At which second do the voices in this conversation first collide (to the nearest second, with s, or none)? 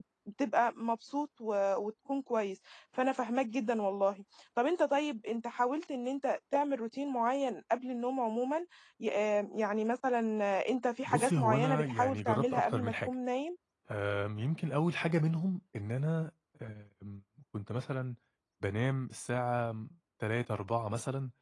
11 s